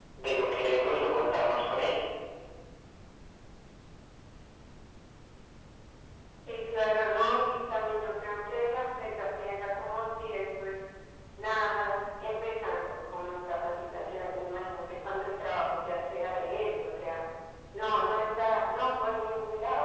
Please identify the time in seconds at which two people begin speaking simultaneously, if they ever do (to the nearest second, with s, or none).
none